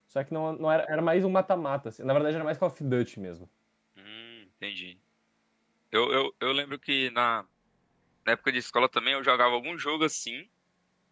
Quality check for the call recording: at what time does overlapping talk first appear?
none

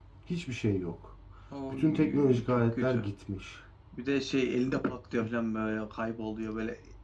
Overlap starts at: 1.7 s

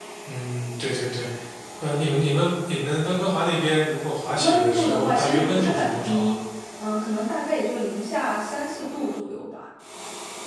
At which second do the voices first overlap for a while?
4.4 s

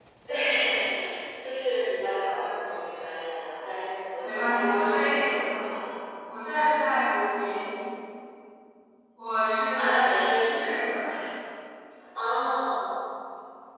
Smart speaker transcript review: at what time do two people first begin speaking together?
4.2 s

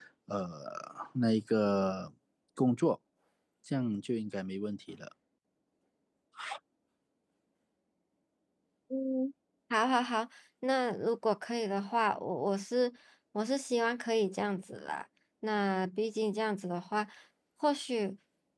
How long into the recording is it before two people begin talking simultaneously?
none

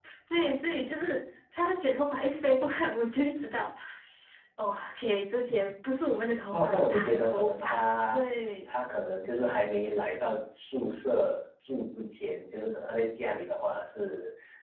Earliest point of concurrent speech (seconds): 6.5 s

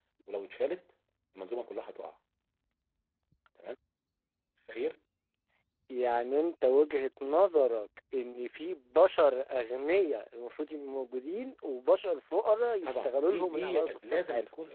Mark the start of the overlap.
12.8 s

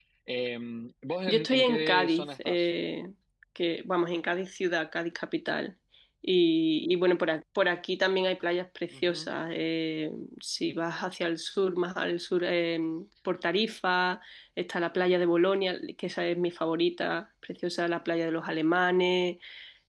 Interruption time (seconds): 1.3 s

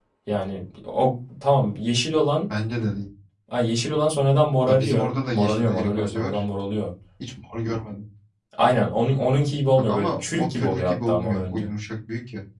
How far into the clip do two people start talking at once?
4.7 s

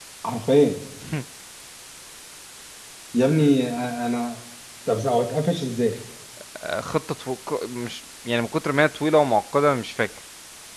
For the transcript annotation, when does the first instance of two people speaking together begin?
none

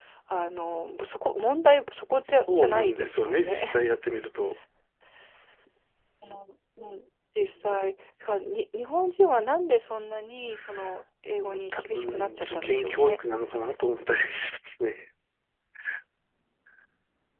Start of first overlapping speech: 2.2 s

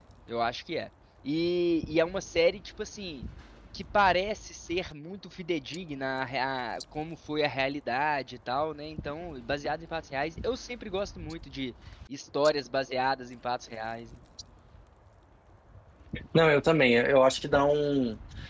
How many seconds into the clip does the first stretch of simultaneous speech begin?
none

